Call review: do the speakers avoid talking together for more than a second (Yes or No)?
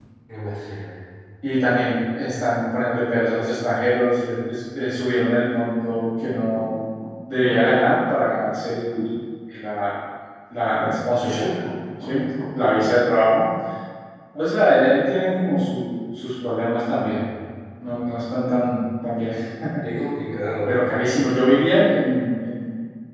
Yes